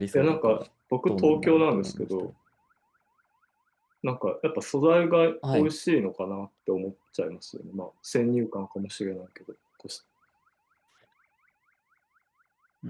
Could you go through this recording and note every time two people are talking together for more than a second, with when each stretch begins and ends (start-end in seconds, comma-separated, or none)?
1.1-2.3